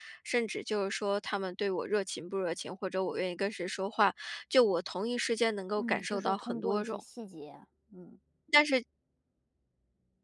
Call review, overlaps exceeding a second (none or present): present